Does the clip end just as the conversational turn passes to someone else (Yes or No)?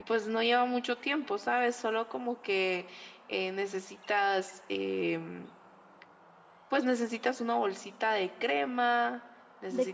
Yes